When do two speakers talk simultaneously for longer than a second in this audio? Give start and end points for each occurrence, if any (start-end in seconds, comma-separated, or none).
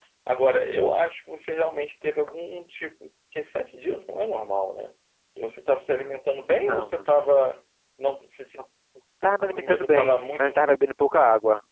9.4-10.7